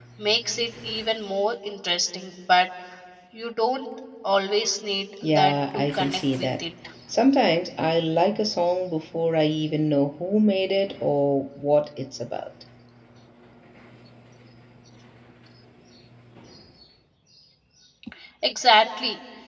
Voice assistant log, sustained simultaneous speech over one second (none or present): present